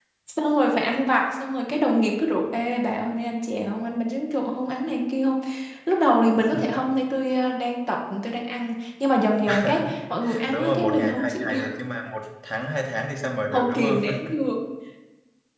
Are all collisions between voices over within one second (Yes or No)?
No